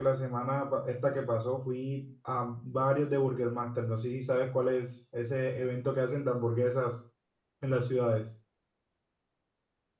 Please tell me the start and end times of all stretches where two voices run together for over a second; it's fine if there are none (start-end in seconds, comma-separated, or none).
none